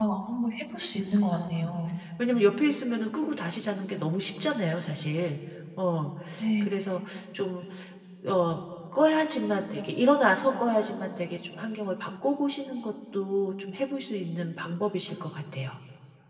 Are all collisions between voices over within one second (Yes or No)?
Yes